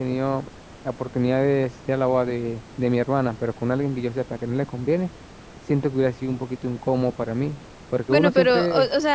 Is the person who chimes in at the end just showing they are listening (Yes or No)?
No